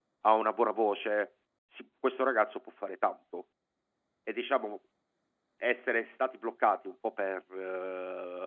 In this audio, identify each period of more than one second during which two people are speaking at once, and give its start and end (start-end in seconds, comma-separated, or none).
none